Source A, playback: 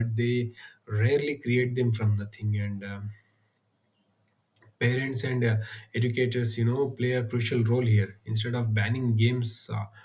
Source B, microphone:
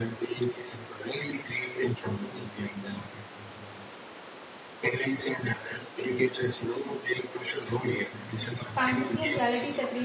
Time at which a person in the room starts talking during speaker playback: 9 s

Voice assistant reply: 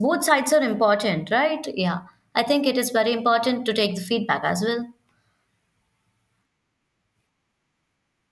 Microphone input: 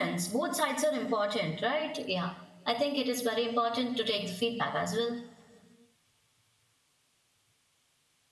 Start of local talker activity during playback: none

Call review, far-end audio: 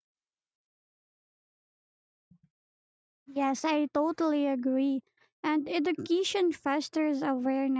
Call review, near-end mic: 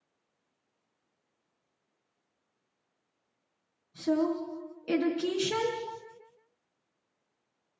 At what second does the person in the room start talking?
4 s

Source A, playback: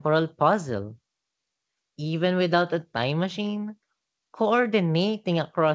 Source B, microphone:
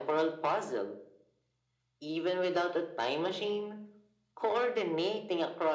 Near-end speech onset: none

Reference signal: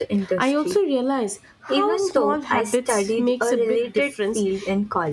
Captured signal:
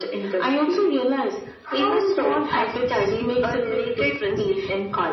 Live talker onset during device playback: none

